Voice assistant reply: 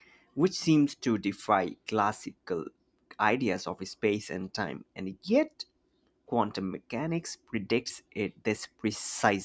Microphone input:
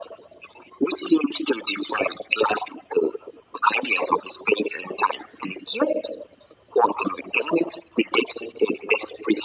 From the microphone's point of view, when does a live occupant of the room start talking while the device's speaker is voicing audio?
none

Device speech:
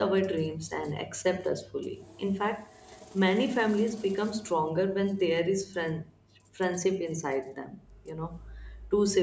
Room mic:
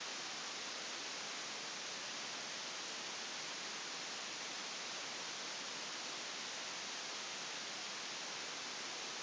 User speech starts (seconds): none

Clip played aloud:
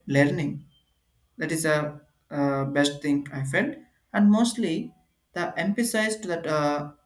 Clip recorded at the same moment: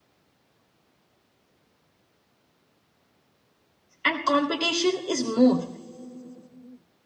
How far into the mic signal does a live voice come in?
4.0 s

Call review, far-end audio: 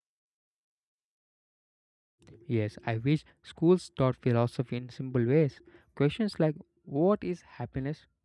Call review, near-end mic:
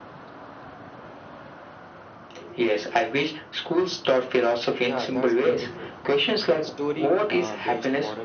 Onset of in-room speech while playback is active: 4.8 s

